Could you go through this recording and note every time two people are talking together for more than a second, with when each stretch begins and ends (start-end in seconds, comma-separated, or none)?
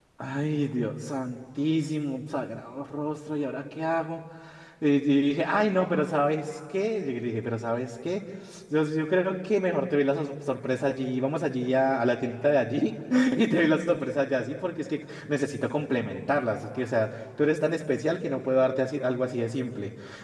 none